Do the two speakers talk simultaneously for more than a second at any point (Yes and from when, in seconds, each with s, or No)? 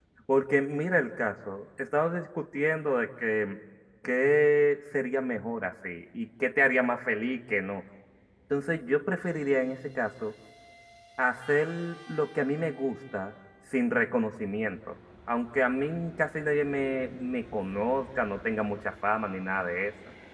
No